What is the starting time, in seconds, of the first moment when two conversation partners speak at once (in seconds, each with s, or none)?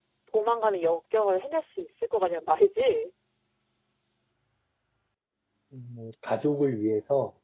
none